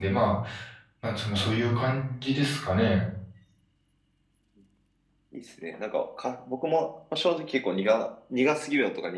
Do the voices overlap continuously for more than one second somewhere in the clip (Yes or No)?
No